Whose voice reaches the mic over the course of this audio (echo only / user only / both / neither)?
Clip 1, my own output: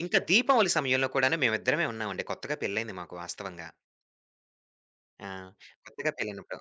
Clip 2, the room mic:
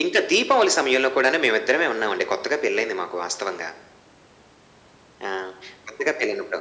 echo only